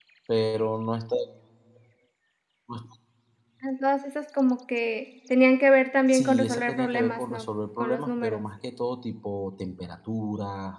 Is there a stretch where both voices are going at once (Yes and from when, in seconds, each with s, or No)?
Yes, from 6.1 s